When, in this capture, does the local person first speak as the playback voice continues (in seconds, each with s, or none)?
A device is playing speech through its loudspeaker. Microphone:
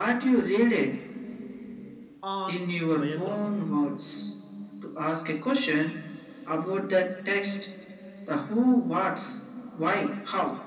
2.2 s